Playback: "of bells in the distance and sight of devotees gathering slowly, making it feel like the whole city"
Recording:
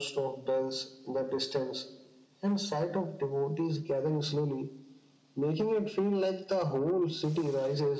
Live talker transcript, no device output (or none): none